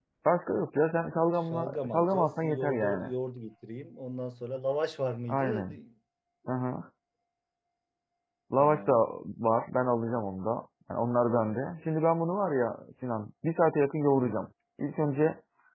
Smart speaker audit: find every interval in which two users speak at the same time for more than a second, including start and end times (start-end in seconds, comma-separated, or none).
1.5-3.1